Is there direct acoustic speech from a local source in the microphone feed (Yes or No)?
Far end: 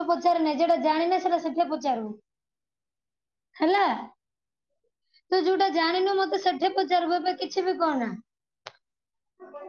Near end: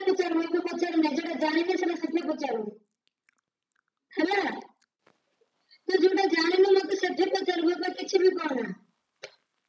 No